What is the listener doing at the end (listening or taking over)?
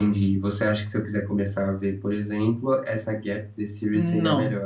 taking over